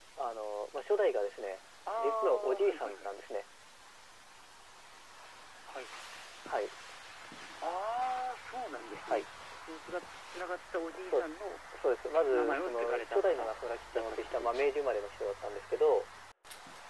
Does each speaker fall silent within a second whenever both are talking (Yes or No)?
No